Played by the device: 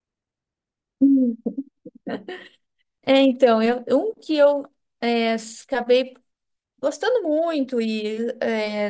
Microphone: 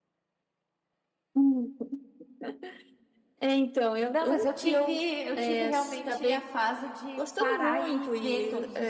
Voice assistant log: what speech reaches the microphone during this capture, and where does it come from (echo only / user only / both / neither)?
both